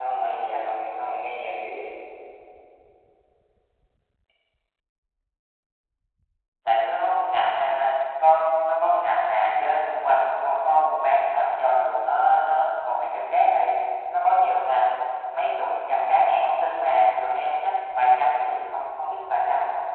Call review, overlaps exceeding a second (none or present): none